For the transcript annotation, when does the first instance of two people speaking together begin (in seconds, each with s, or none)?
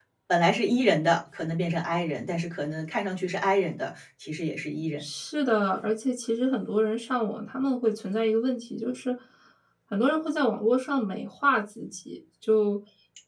none